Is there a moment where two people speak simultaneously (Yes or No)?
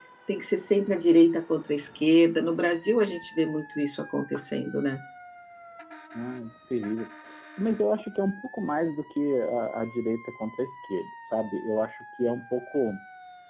No